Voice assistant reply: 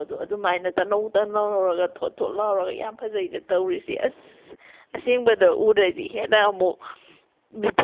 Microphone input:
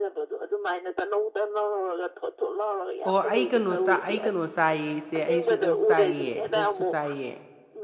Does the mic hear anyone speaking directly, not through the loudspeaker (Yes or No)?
Yes